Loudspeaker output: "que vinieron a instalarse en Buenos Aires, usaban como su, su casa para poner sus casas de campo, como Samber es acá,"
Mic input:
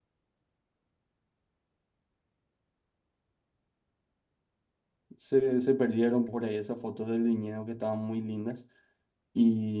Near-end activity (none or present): present